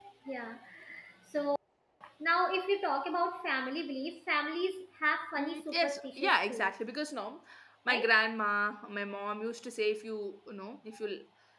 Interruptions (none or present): present